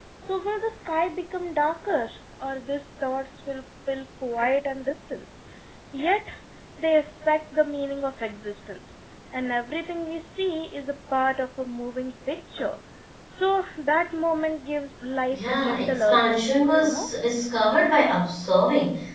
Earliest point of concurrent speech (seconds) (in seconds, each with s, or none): 15.3 s